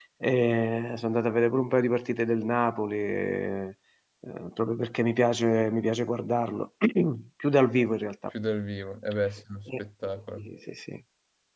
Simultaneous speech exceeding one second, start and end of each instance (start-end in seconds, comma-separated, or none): none